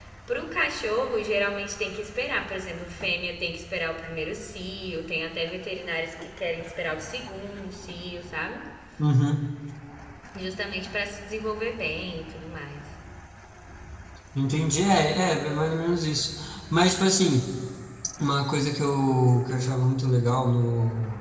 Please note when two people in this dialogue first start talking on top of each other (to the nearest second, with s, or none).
none